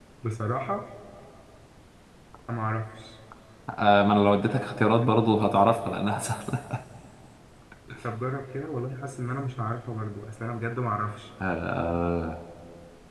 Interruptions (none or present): none